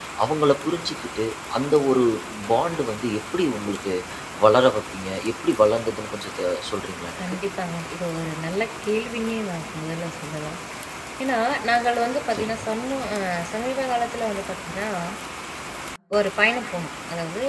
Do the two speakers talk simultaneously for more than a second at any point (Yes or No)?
No